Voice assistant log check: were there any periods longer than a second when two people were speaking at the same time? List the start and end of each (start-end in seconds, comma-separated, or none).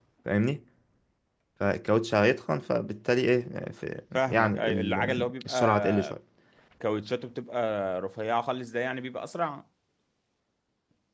4.2-6.1